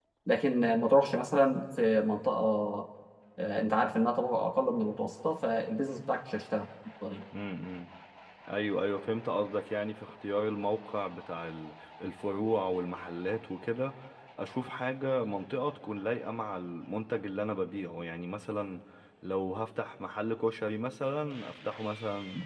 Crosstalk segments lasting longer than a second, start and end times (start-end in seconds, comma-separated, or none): none